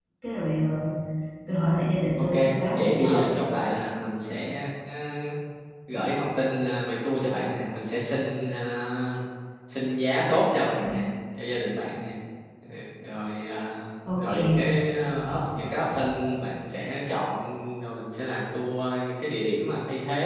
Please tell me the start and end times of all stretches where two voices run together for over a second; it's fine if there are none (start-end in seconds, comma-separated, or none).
none